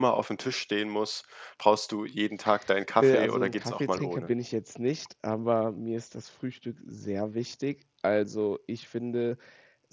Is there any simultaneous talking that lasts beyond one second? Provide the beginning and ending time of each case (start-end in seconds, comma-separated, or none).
3.0-4.3